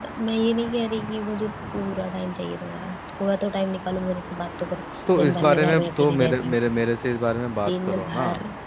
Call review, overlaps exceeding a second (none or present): present